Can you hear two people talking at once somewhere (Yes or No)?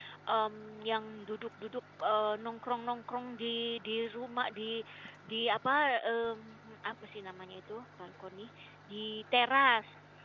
No